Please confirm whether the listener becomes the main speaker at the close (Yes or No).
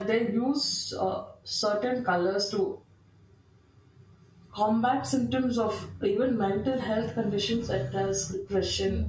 No